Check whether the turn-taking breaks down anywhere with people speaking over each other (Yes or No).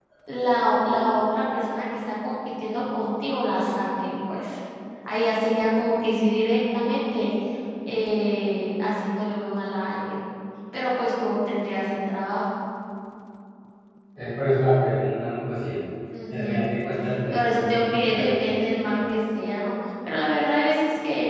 Yes